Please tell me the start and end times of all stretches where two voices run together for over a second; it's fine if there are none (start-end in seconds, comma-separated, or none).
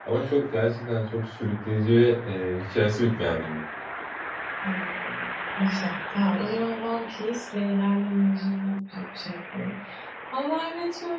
none